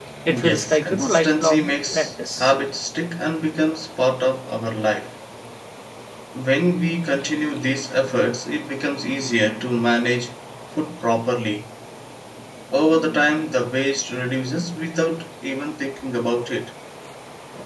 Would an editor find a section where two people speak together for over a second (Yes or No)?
Yes